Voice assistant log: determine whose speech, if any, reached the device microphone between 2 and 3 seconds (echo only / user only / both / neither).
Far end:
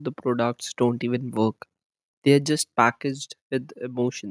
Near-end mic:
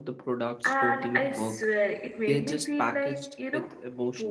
both